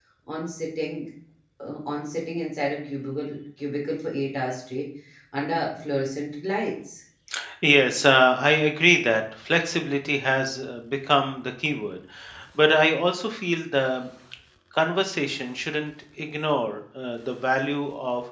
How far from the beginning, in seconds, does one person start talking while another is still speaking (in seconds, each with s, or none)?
none